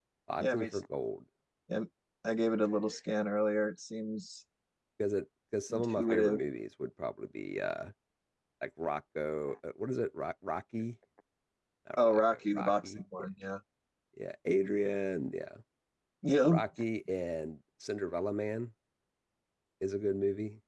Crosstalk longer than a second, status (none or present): present